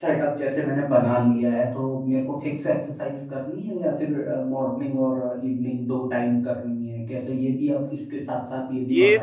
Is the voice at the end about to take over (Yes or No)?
Yes